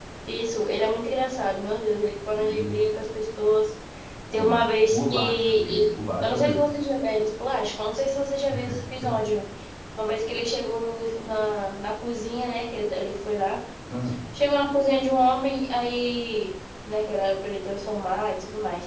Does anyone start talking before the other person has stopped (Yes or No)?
Yes